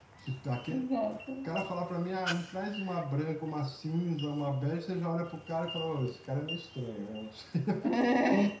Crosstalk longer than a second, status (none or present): none